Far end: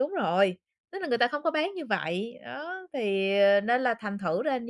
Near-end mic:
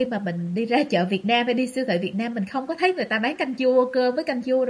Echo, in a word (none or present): none